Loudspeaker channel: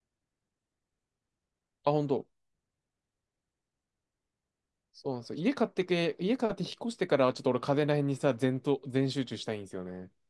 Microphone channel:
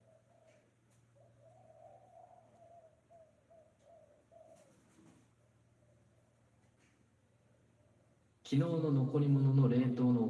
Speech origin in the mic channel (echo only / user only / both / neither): user only